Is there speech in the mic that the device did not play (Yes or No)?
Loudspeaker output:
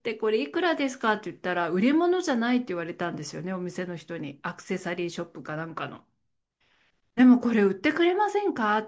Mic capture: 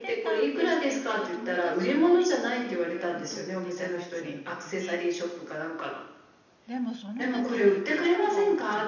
Yes